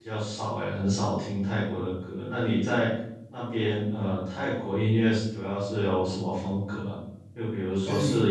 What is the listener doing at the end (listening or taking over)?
listening